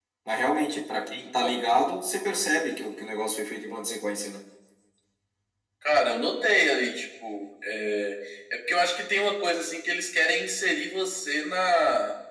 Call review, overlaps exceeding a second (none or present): none